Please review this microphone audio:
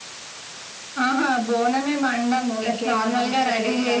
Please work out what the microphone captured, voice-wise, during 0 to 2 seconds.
echo only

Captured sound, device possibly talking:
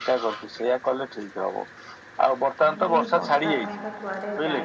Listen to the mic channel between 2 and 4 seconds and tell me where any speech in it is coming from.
both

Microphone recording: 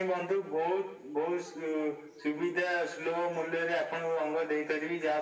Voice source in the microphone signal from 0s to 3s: echo only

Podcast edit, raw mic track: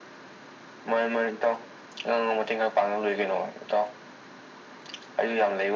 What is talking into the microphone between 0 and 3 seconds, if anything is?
echo only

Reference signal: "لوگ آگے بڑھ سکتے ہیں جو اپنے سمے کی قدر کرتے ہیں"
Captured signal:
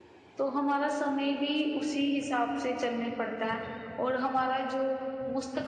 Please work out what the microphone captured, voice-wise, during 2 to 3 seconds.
user only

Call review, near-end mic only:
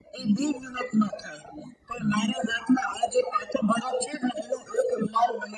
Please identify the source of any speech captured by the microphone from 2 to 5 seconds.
echo only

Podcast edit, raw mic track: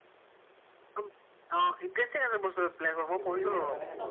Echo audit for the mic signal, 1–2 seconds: echo only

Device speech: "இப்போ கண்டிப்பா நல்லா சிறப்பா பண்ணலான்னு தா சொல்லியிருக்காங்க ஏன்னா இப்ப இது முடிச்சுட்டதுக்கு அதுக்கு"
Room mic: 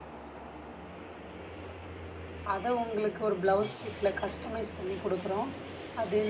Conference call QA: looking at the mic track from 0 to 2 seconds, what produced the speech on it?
neither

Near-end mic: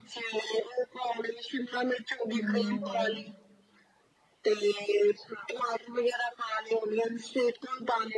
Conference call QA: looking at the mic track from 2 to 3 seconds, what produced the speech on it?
both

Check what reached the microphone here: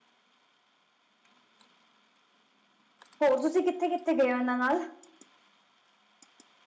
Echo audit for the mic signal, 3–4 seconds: user only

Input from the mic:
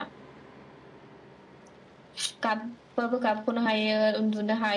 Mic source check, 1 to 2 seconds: neither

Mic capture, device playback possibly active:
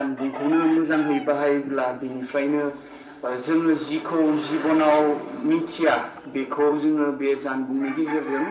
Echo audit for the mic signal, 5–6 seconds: echo only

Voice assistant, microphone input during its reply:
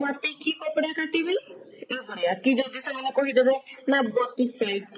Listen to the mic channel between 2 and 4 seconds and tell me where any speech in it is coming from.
echo only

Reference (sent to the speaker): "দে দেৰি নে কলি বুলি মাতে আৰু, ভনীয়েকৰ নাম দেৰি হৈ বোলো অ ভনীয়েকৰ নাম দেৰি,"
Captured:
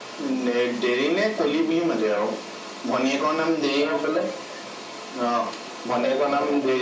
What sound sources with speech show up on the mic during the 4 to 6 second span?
echo only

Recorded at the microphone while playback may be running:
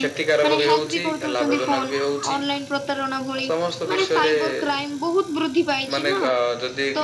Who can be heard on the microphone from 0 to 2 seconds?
both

